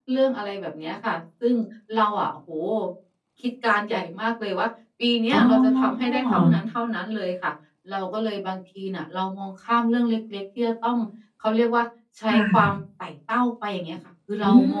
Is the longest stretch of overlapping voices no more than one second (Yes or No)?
No